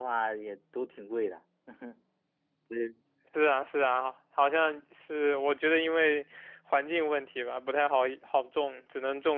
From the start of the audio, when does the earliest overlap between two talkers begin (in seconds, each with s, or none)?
none